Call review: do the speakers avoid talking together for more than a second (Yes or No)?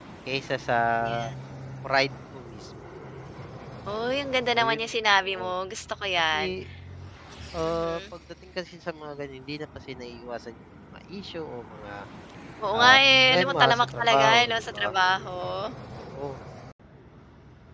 No